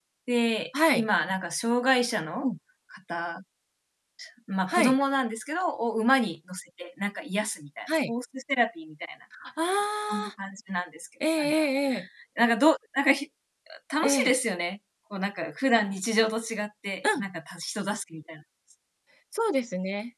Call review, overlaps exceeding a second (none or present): none